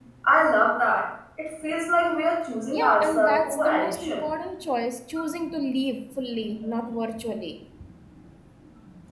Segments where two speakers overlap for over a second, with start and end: 2.7-4.2

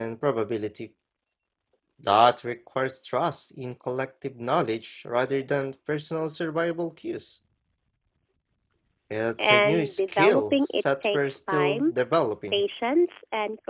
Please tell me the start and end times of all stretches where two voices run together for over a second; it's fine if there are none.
9.4-11.9

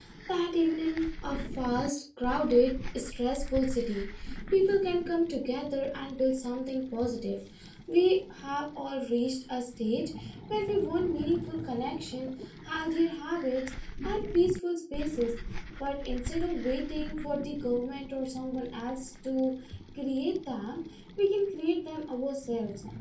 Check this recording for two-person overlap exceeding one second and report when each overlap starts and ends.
none

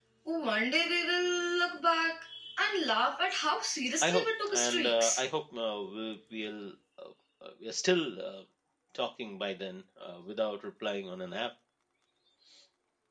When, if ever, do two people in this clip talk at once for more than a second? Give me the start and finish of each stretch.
4.0-5.2

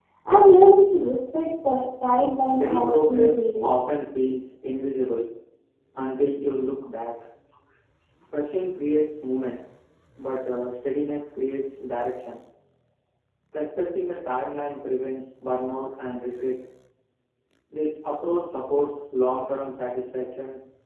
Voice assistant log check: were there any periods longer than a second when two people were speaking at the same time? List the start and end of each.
2.5-3.7

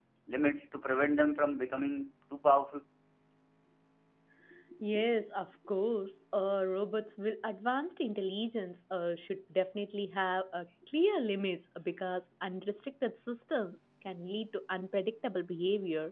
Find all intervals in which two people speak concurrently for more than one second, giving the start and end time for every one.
none

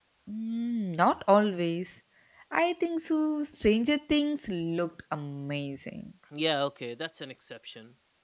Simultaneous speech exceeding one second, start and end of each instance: none

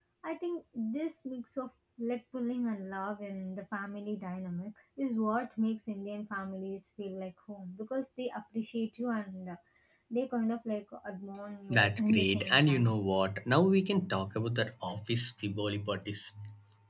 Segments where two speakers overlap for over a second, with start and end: 11.7-13.0

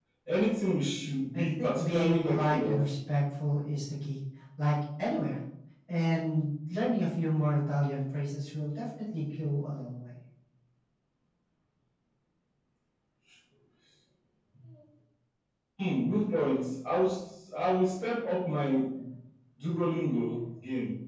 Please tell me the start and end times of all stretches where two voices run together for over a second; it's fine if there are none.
1.3-2.8

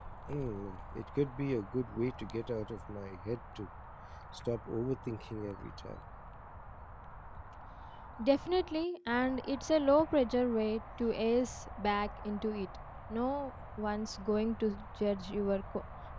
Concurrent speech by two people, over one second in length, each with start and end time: none

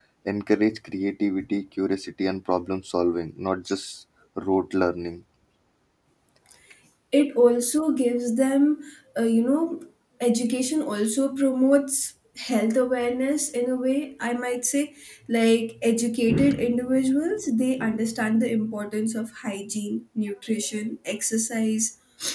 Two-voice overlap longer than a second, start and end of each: none

